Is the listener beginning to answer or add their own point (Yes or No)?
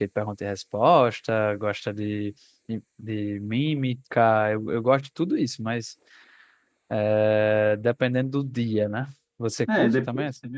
Yes